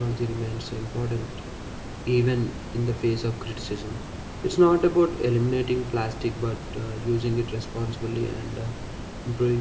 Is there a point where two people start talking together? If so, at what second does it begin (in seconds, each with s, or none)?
none